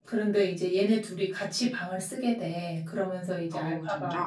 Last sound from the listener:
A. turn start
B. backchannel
B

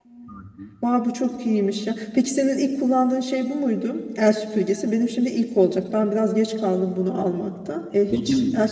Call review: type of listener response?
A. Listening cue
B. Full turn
A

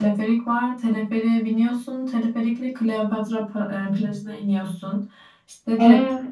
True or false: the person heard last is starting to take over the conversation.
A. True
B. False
B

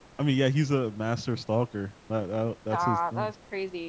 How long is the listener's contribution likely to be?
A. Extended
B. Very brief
A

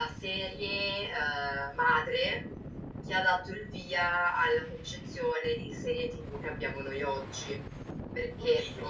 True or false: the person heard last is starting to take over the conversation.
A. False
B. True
A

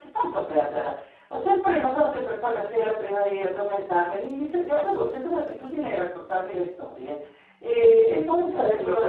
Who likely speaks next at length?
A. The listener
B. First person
B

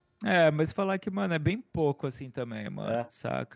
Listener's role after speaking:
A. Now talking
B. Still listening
B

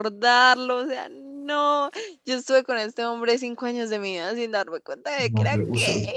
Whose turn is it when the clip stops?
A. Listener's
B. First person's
A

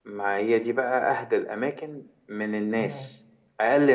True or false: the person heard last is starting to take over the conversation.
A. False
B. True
A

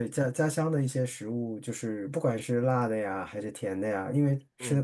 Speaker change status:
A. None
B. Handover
A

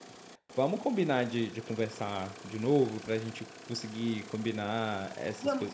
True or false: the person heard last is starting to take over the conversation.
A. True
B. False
A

